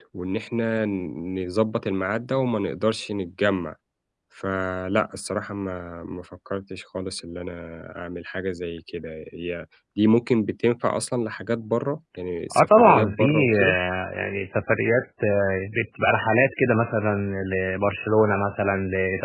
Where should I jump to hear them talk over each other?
12.5 s

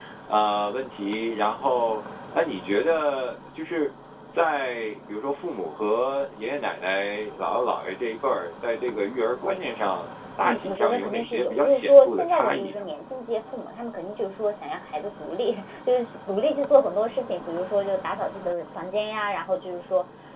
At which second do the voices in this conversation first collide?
10.4 s

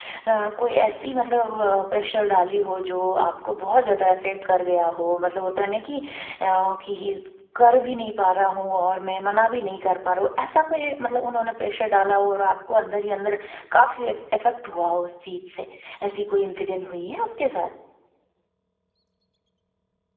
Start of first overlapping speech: none

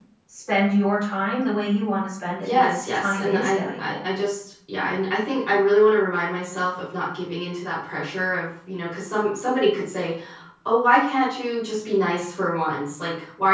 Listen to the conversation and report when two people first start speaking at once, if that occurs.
2.5 s

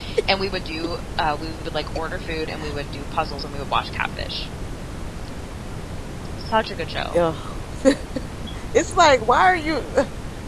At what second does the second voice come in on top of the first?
none

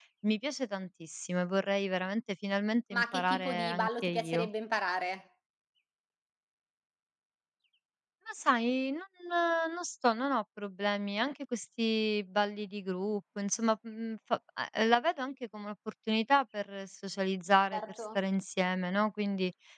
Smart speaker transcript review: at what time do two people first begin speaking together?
2.9 s

